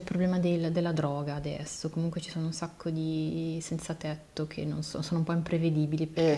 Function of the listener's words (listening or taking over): taking over